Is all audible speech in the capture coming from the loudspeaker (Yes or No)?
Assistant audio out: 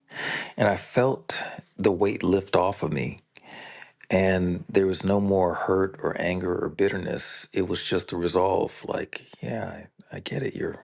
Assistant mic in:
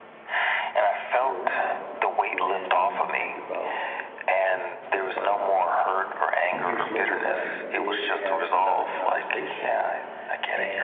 No